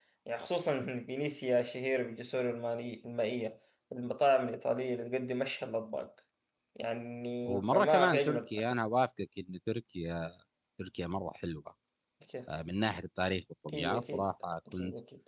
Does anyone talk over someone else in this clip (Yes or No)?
Yes